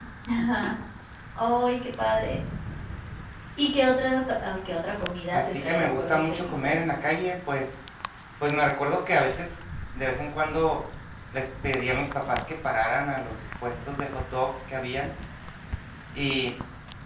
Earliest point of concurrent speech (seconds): 5.3 s

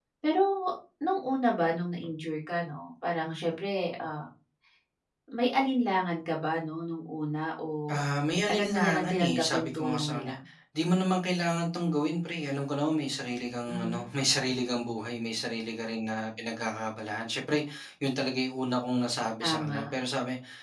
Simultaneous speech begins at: 8.5 s

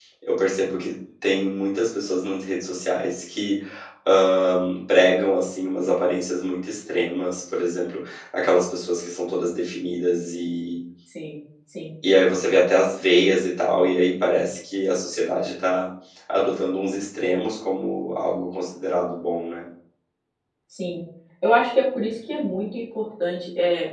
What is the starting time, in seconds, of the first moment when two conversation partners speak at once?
none

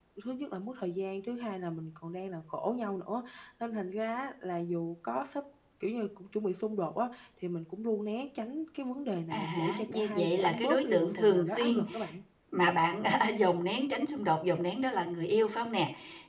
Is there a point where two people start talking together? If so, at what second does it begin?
9.3 s

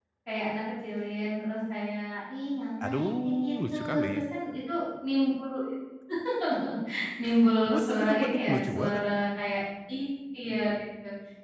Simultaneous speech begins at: 2.8 s

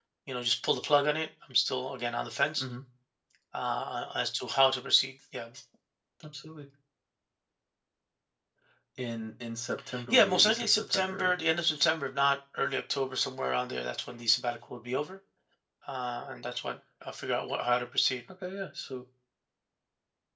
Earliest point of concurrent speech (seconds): 9.9 s

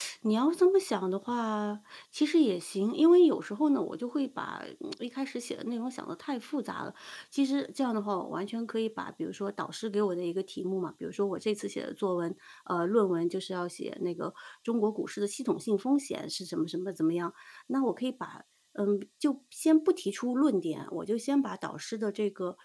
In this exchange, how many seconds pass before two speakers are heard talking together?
none

